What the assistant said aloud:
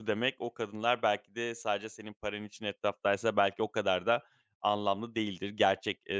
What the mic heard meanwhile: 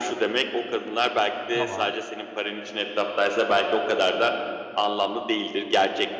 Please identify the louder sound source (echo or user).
echo